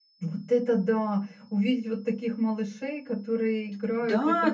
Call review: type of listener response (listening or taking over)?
taking over